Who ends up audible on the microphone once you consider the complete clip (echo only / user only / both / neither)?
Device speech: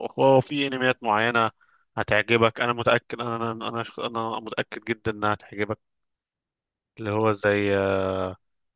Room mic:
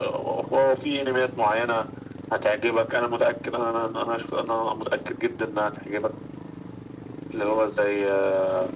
echo only